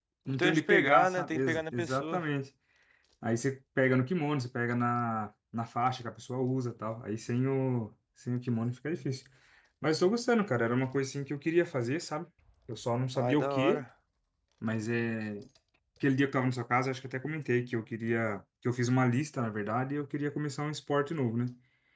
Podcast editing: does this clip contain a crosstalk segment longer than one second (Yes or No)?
Yes